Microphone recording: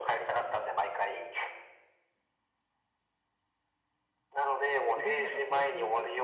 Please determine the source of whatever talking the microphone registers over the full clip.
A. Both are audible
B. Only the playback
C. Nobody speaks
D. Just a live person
A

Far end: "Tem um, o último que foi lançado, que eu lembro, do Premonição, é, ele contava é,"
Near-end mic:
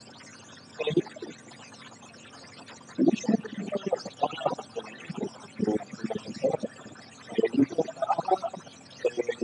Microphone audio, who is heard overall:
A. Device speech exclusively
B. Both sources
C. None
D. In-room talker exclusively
A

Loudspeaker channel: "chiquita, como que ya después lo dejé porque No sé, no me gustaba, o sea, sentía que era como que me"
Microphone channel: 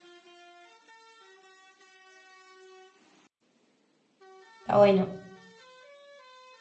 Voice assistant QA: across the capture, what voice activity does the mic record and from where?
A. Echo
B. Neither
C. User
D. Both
C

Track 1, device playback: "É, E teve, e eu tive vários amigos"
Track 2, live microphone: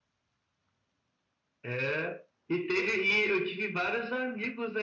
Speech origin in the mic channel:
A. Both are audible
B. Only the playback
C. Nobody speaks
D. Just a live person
B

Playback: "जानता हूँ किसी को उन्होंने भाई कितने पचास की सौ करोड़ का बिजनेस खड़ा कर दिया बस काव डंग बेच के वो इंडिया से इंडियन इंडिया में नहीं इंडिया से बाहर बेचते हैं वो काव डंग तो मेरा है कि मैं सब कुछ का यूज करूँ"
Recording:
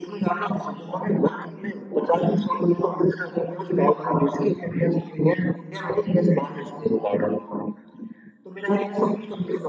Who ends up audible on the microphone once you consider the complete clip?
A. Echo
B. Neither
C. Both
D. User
A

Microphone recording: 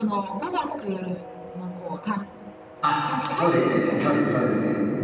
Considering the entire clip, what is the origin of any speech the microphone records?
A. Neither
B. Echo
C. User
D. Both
D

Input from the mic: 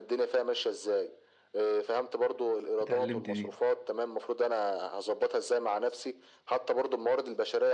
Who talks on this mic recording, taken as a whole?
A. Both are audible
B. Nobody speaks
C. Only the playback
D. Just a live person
A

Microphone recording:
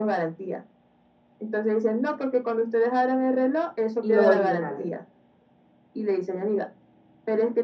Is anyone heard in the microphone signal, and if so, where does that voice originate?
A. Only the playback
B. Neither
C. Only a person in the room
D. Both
D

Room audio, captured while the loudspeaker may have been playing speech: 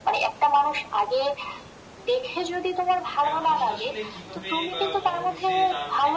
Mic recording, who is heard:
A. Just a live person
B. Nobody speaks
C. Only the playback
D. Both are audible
D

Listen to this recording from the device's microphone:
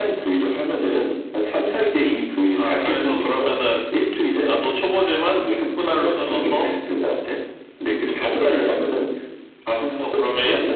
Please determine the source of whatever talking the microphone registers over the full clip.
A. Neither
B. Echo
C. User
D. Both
B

